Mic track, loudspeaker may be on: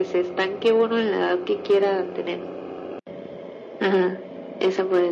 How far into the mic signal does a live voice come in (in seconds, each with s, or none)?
none